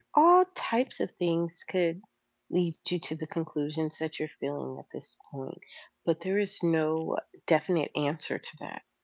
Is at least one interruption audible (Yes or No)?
No